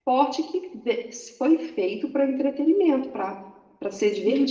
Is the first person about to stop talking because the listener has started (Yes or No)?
Yes